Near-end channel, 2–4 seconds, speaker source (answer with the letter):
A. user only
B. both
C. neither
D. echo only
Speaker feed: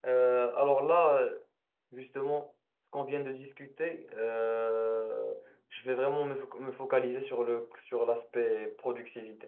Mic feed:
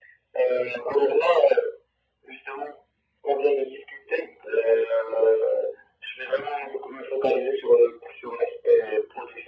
D